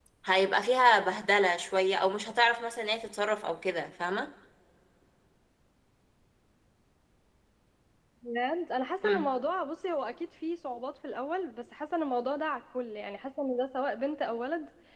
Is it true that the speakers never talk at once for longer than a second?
Yes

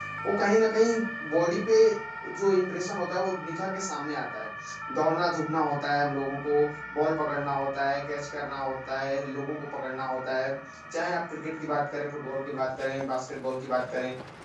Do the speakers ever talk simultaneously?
No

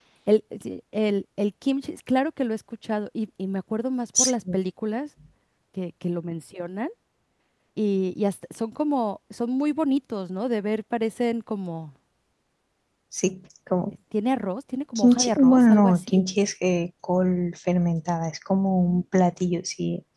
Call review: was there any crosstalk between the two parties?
Yes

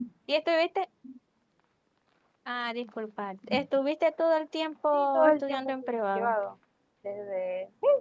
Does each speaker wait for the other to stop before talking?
No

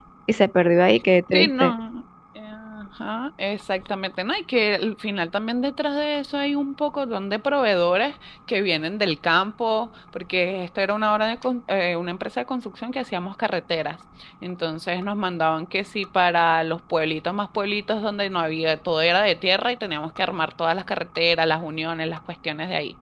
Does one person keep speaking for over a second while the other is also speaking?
No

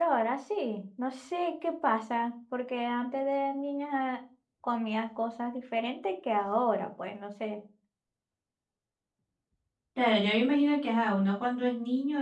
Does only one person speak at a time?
Yes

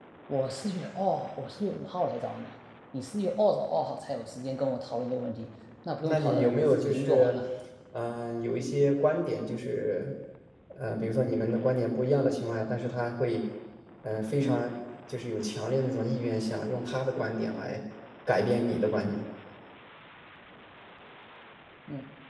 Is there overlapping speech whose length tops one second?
Yes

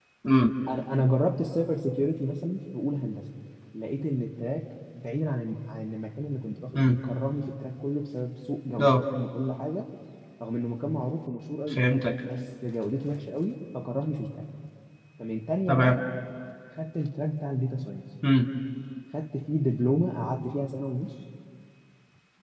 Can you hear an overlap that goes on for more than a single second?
No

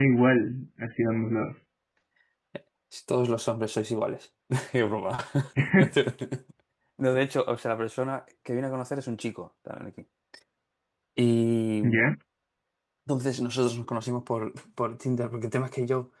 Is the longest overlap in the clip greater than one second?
No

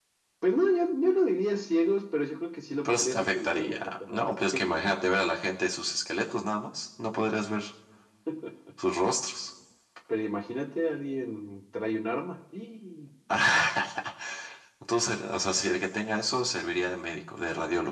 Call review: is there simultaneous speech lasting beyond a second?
Yes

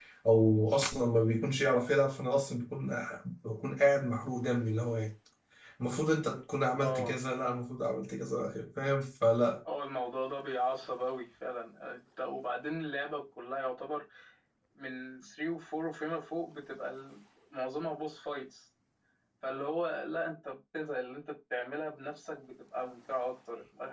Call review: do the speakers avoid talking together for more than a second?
Yes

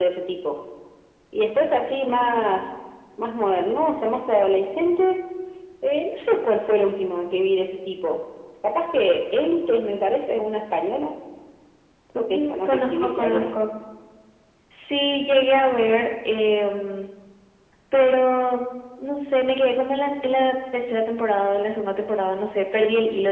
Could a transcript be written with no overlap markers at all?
No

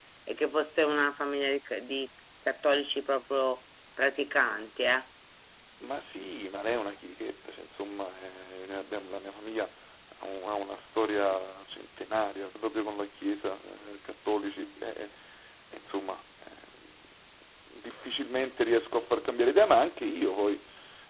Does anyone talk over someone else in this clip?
No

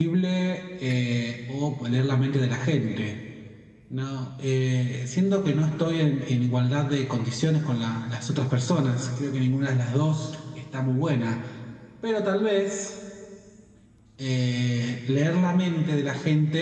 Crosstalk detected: No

